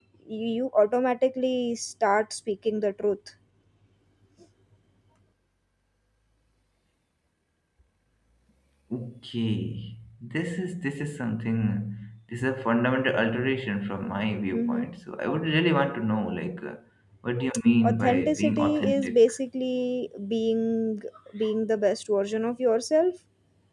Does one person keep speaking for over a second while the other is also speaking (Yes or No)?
Yes